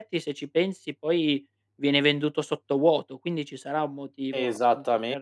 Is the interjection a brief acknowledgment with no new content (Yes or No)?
No